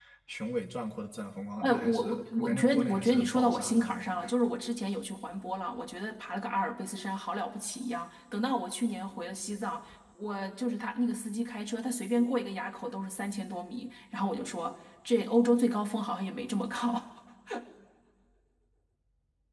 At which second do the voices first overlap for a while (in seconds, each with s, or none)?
1.6 s